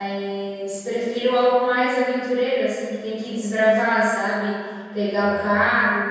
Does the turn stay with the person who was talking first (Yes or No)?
Yes